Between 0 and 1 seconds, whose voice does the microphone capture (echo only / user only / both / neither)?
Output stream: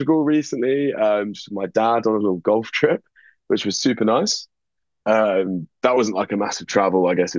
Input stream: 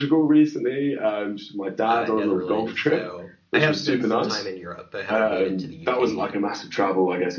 echo only